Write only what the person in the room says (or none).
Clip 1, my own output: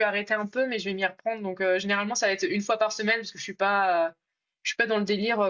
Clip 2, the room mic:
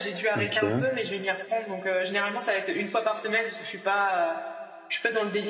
Ok.